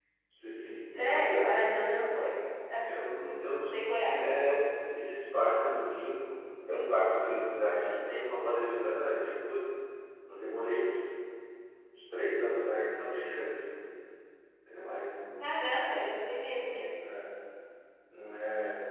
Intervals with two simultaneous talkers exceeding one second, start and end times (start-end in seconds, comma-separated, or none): none